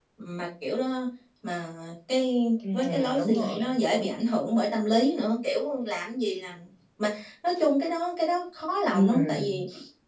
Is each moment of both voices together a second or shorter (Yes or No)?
No